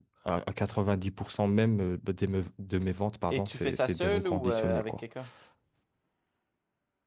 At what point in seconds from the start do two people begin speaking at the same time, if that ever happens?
3 s

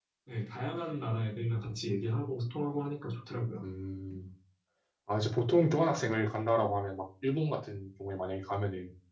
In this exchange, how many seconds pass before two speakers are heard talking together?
none

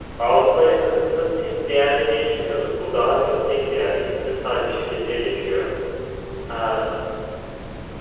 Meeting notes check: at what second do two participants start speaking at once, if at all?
none

